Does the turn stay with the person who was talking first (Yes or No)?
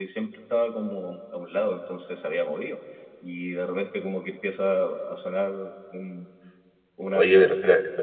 No